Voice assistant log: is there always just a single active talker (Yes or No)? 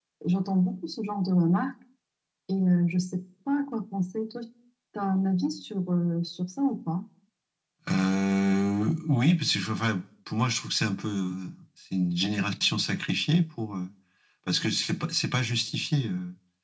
Yes